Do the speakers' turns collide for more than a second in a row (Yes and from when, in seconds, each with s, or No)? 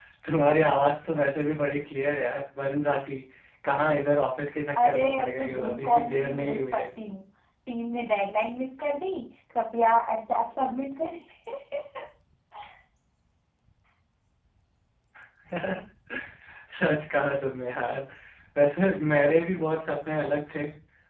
Yes, from 4.8 s